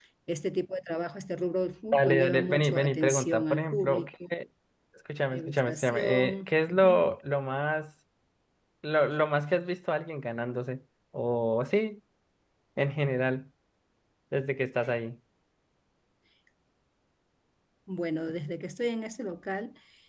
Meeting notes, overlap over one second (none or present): present